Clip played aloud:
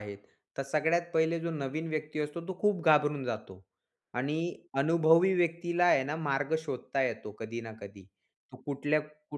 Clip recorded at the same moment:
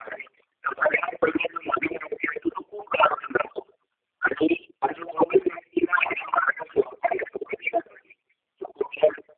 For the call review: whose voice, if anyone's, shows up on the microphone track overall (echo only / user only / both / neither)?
echo only